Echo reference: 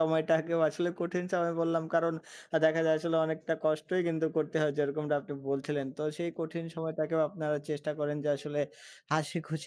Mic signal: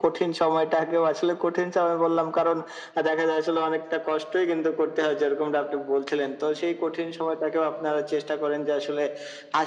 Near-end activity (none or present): none